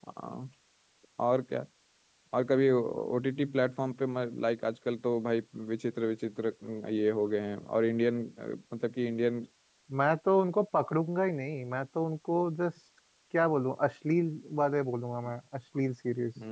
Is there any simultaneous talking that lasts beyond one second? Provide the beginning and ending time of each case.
none

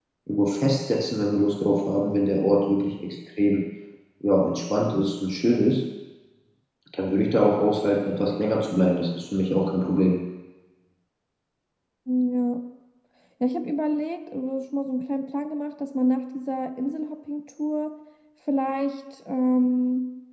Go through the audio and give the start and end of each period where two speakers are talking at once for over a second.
none

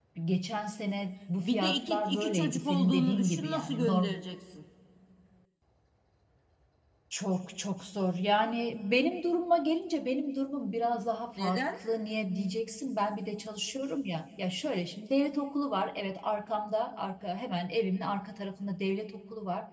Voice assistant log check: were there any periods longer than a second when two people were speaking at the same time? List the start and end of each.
1.4-4.1

